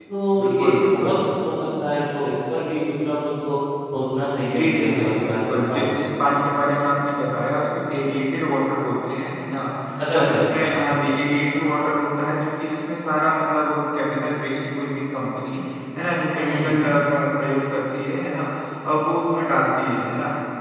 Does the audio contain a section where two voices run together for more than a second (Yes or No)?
Yes